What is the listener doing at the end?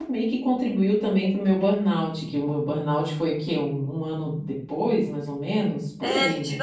taking over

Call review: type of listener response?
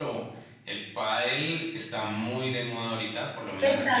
taking over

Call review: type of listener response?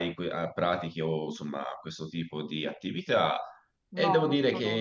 taking over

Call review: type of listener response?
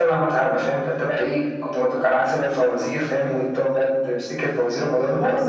taking over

